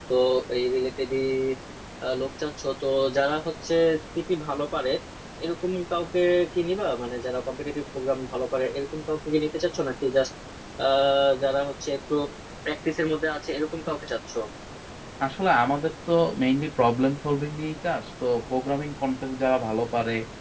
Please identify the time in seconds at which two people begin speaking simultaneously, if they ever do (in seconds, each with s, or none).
none